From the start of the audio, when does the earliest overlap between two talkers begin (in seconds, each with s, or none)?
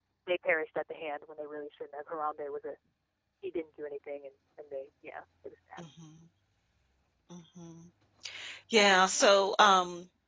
none